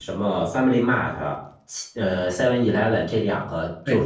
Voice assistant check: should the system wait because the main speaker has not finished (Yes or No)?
Yes